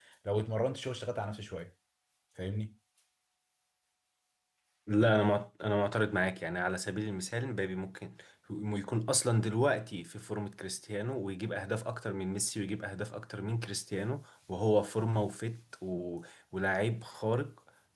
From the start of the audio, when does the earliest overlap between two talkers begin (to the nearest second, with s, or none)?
none